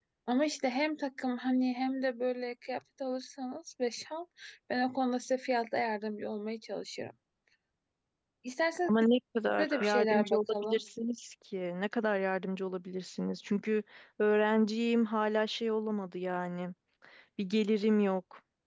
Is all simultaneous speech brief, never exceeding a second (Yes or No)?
No